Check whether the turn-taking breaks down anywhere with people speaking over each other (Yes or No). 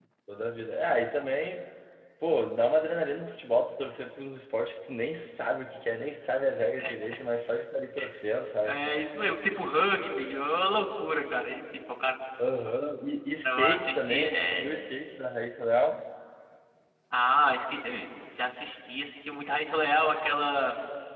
Yes